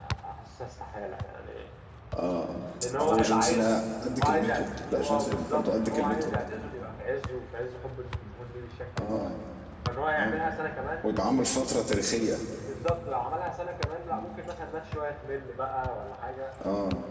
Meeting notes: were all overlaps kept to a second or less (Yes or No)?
No